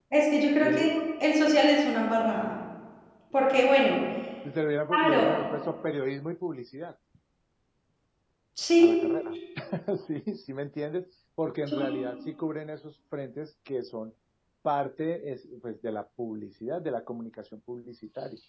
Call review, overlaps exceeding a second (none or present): none